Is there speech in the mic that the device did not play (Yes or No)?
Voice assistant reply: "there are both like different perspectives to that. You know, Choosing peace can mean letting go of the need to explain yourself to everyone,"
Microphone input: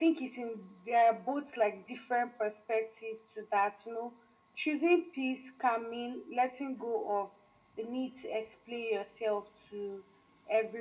No